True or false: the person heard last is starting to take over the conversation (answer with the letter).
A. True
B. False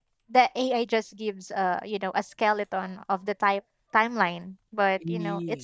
B